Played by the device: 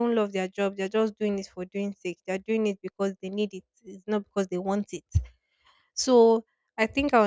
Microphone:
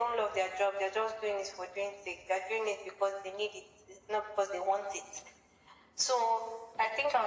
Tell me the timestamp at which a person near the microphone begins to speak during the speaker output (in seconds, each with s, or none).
none